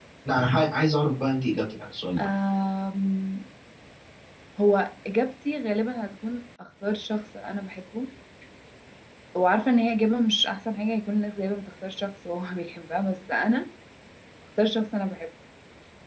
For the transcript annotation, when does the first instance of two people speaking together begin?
none

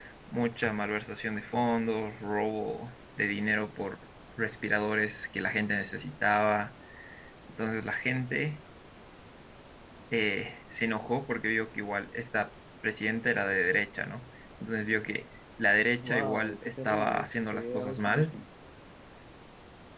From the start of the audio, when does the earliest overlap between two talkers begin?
16.0 s

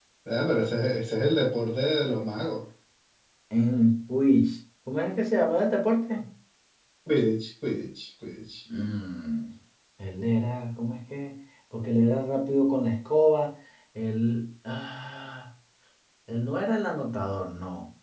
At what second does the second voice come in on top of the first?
none

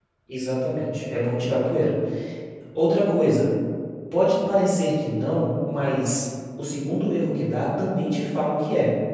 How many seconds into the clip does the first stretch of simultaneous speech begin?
none

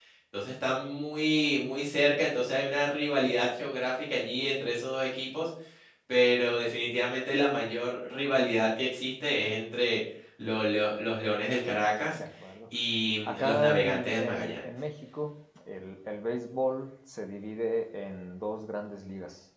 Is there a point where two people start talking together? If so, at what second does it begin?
13.2 s

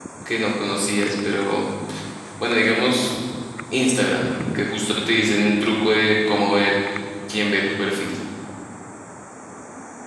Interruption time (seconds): none

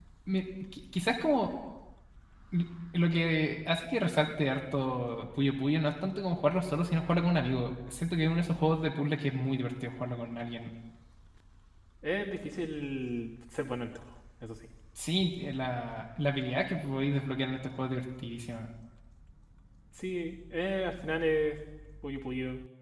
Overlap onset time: none

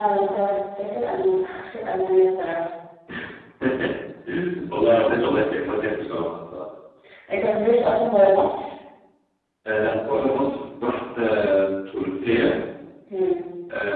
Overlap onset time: none

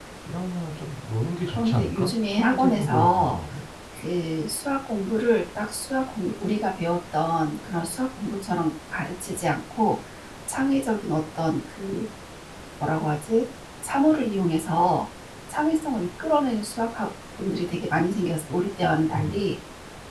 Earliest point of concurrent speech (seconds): 1.5 s

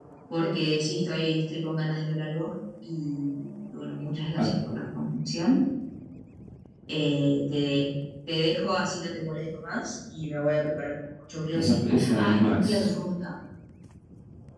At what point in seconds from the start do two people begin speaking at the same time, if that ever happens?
11.5 s

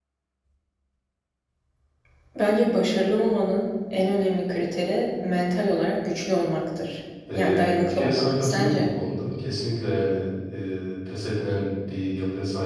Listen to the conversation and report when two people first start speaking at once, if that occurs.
7.3 s

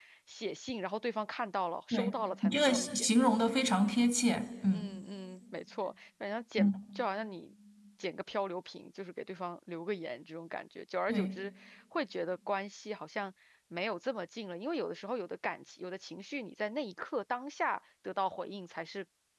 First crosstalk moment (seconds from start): 1.9 s

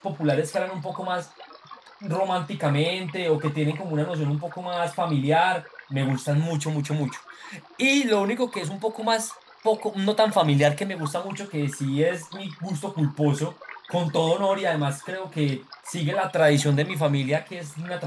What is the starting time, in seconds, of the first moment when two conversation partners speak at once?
none

